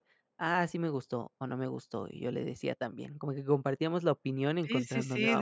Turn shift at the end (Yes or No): Yes